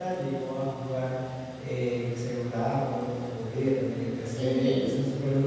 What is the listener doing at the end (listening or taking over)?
listening